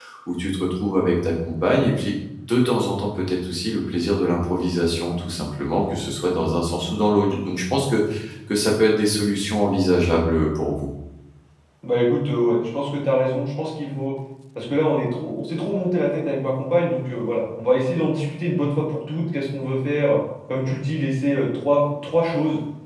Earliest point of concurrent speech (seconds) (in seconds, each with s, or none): none